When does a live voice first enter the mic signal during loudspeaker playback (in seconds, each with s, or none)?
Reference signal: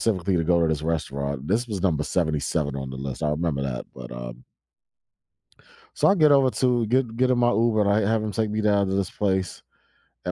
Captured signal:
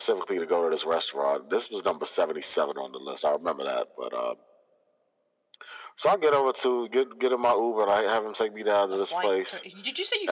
8.9 s